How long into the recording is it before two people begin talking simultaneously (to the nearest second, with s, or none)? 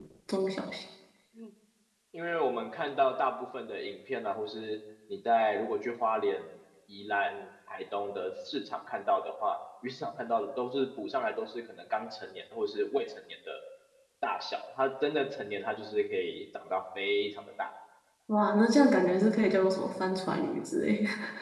none